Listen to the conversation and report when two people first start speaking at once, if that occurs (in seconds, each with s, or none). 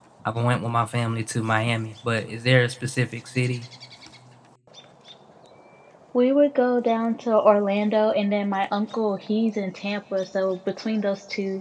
none